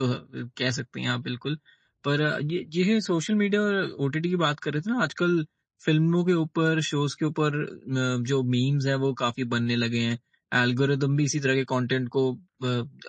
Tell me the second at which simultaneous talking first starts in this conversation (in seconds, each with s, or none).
none